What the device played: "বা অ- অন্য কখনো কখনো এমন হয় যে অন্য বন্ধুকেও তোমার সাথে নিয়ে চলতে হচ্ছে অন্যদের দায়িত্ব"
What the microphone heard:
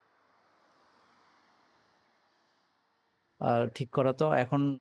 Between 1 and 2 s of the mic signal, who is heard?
neither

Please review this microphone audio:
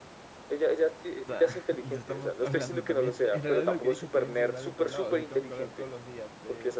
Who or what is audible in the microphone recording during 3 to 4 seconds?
both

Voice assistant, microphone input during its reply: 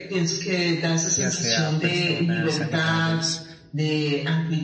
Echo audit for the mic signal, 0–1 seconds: echo only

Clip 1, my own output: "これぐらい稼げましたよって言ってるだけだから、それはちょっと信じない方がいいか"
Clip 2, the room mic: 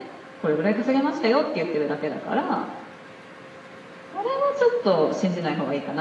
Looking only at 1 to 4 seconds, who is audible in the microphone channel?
echo only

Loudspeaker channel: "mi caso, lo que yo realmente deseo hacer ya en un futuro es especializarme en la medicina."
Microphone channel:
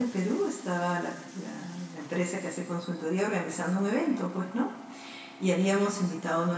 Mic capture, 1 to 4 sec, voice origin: user only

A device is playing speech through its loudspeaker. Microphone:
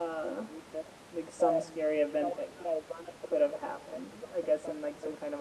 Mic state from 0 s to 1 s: both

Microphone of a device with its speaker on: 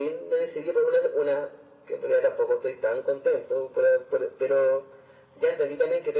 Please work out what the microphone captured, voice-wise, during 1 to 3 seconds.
echo only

